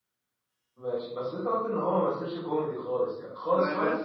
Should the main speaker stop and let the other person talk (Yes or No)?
Yes